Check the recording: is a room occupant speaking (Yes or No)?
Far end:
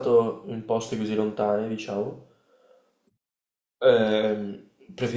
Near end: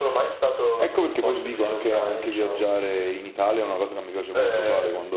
Yes